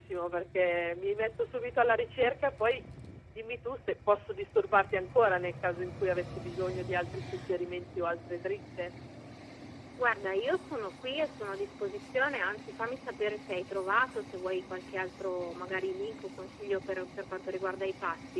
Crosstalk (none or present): none